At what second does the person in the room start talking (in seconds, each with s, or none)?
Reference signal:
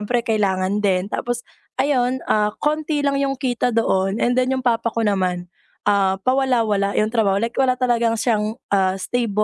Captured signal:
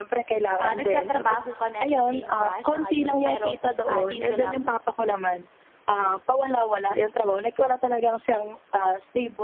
0.6 s